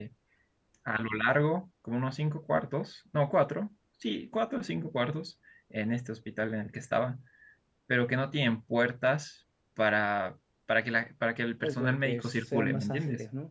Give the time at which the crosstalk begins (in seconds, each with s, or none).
11.6 s